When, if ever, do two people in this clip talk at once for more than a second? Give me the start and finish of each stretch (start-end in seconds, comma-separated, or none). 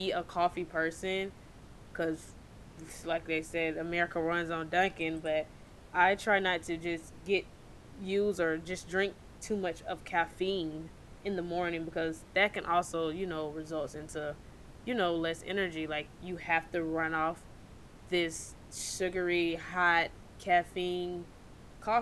none